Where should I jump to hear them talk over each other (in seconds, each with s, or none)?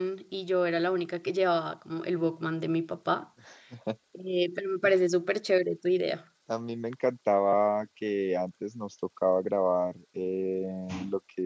none